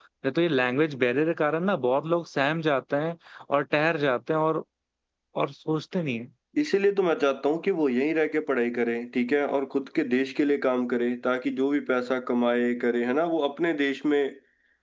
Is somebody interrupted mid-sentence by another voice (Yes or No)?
No